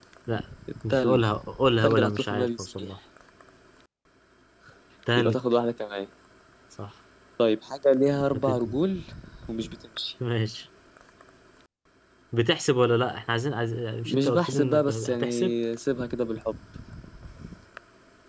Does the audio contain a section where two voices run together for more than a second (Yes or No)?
Yes